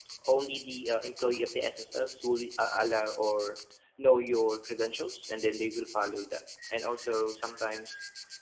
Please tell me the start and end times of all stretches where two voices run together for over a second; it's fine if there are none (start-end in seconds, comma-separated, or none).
none